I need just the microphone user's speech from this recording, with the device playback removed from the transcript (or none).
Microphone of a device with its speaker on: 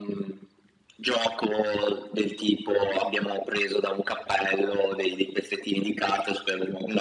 none